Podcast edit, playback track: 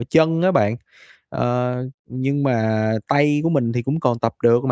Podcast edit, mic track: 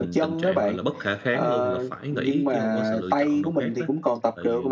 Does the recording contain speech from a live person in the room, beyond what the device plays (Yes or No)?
Yes